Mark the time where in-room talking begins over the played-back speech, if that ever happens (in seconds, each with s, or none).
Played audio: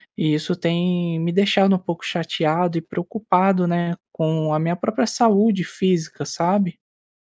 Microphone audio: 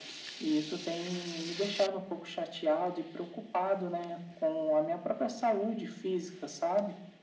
none